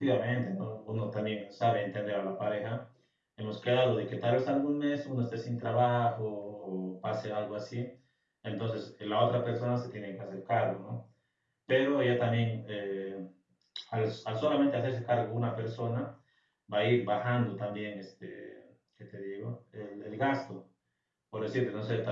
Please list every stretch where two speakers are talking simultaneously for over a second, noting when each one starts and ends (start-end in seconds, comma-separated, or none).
none